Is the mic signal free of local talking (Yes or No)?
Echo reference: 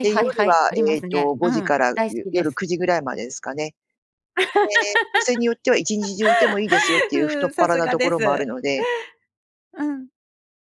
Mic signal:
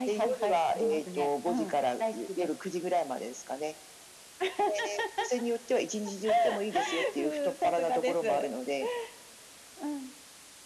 Yes